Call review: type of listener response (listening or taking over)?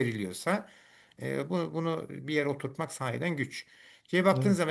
listening